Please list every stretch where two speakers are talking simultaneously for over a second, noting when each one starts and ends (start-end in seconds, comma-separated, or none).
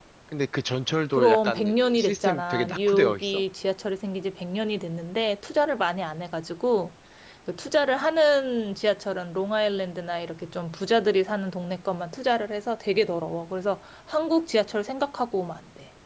1.1-3.4